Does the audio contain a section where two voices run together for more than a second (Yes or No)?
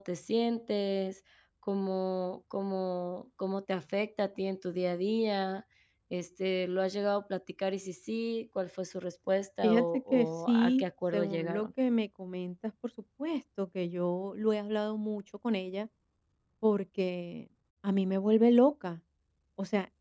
Yes